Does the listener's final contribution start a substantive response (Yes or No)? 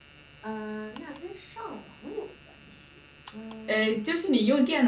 Yes